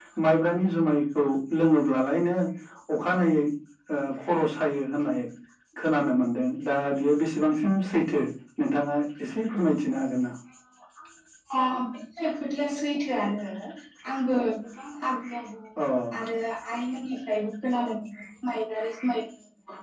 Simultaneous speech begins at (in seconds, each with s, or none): none